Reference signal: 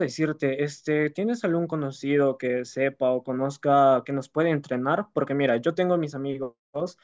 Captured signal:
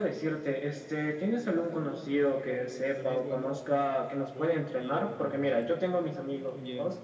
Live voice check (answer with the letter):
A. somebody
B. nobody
A